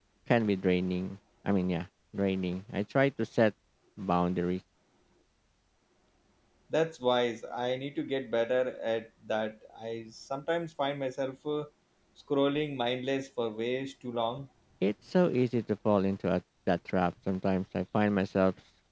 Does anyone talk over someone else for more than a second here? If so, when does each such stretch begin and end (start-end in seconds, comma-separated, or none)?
none